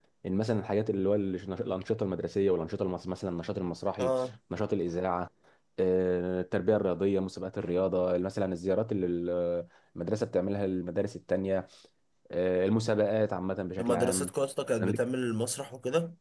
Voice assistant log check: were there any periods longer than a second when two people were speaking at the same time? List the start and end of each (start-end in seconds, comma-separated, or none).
none